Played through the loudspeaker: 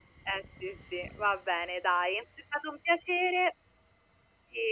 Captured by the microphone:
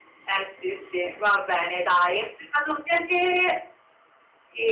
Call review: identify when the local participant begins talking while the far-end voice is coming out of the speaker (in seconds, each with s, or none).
none